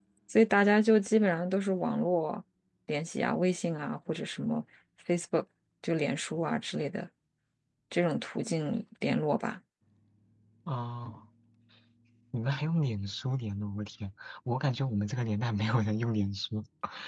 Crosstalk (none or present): none